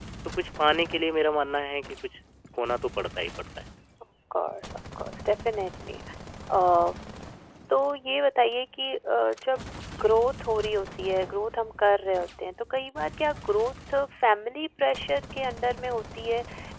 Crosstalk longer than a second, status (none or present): none